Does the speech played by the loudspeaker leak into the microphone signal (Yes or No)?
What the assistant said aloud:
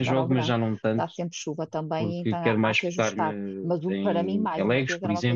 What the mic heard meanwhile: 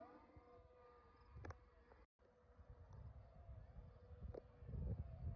No